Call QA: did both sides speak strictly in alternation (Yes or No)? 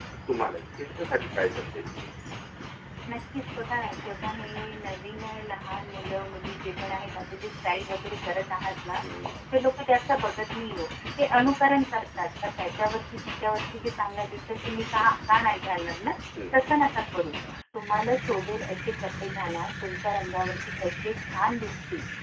Yes